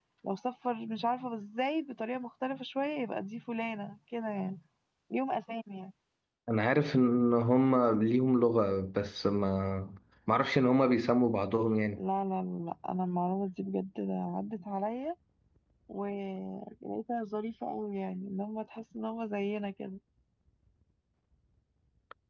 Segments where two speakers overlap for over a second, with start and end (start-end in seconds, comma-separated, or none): none